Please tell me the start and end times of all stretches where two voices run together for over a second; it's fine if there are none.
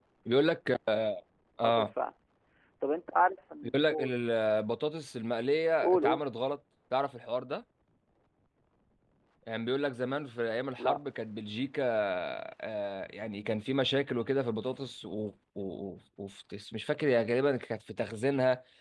none

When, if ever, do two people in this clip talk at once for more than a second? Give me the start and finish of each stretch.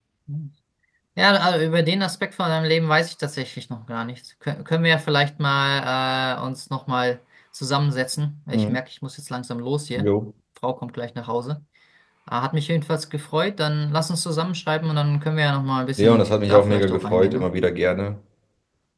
16.0-17.5

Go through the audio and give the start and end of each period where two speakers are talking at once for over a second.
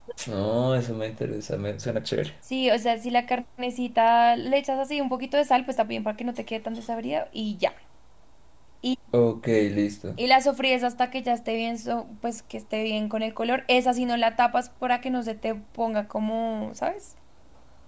none

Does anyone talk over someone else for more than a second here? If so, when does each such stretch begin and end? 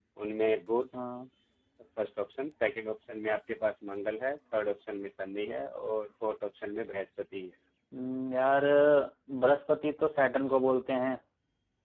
none

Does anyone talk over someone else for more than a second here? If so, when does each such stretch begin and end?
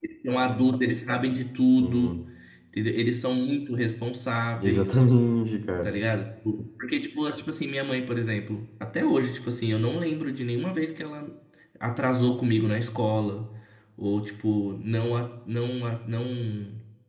none

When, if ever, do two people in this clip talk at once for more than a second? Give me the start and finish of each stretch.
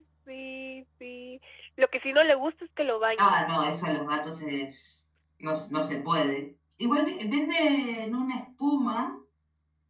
none

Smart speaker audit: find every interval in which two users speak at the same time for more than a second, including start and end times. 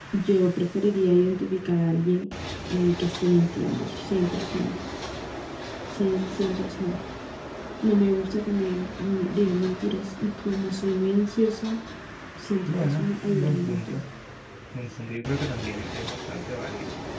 12.7-14.0

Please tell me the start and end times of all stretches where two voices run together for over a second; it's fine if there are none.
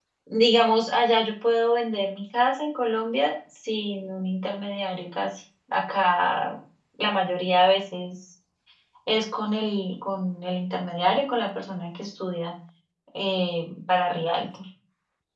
none

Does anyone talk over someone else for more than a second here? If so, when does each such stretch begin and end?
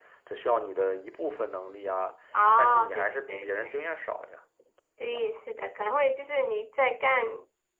2.6-3.9

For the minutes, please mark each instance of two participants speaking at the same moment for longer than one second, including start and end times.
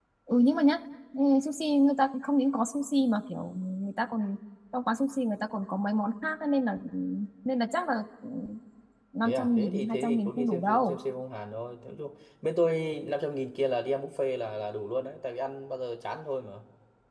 9.2-11.0

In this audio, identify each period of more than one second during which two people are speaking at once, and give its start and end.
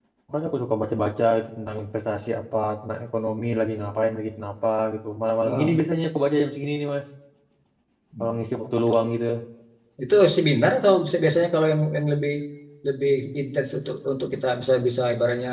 none

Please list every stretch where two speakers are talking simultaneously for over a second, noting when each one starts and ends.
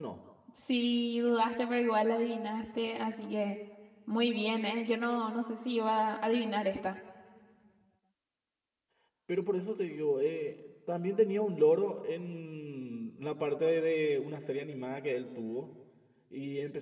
none

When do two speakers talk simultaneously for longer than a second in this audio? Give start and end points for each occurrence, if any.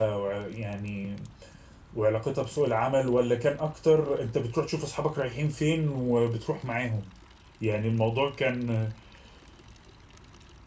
none

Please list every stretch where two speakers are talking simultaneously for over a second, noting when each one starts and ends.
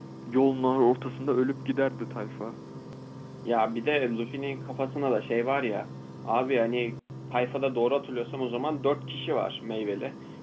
none

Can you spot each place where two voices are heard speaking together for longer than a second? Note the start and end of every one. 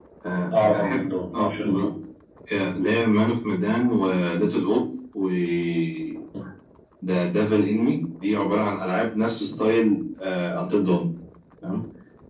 0.6-1.9

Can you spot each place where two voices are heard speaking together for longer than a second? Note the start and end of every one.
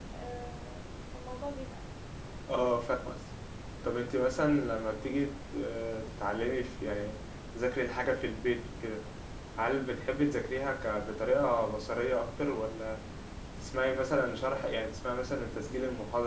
none

